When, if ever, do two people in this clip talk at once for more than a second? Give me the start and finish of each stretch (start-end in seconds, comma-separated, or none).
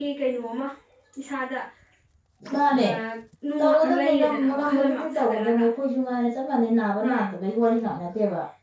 3.6-5.7